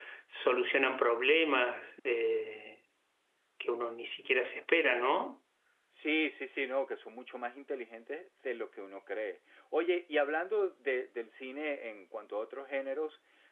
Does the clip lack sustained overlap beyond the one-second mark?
Yes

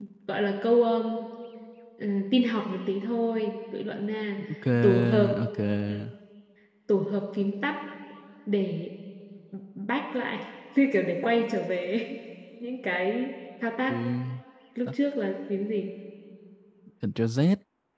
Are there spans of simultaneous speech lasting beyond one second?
No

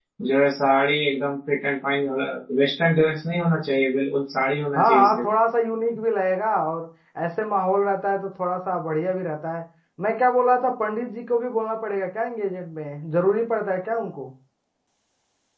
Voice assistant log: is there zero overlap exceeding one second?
Yes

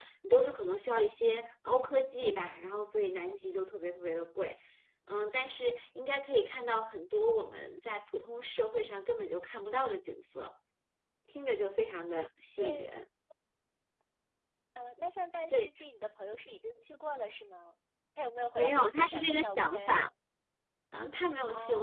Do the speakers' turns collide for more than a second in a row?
Yes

